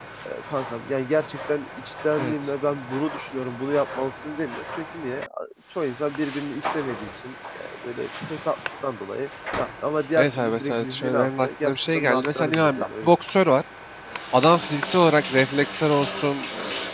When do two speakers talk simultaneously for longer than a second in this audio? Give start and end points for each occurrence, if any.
10.2-13.1

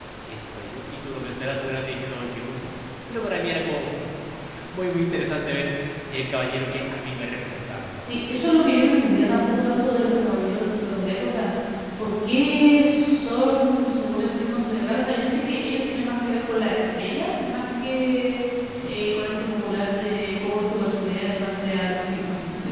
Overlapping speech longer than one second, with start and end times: none

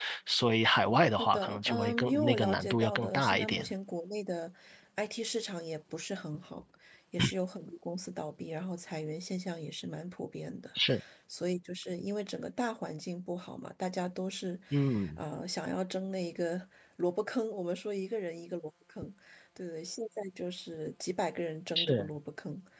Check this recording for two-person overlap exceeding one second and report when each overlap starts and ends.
1.2-3.7

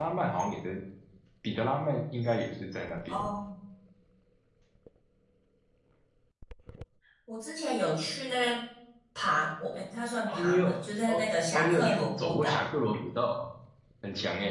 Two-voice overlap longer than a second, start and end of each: 10.3-12.6

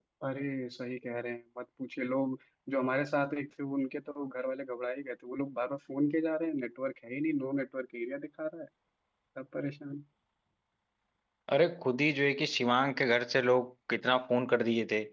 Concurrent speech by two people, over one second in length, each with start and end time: none

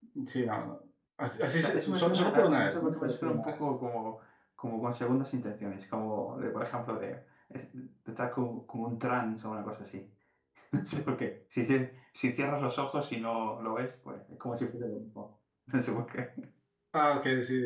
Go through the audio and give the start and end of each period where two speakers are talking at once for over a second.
1.6-3.6

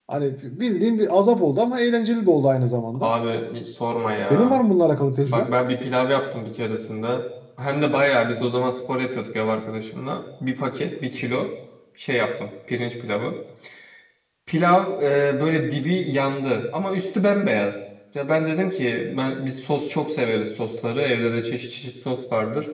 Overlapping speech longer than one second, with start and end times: none

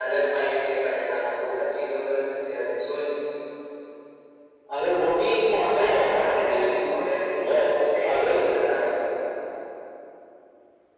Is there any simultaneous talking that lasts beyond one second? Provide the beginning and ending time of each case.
5.7-7.7

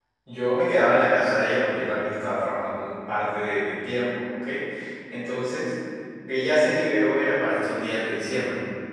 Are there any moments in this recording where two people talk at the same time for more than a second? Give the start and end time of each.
none

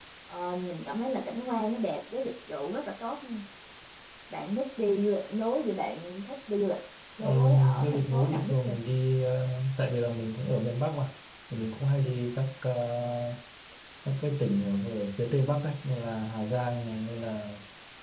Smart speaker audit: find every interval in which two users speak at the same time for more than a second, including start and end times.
7.2-8.8

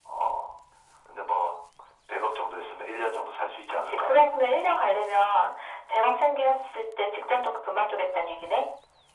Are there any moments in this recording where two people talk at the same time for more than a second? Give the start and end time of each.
none

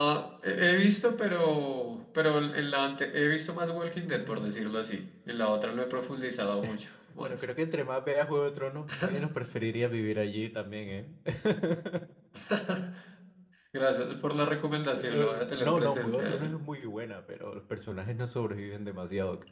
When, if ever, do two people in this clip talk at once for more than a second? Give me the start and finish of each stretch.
15.0-16.5

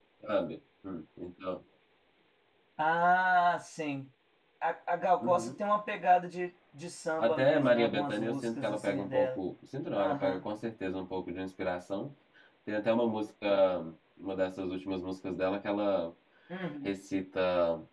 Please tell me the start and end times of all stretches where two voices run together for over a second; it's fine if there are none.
7.2-9.4

